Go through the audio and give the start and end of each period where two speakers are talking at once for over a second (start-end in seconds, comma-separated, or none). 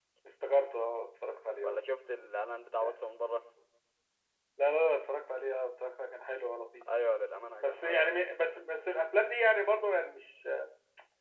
none